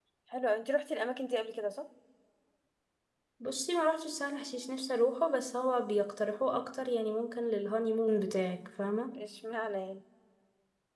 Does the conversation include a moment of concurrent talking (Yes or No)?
No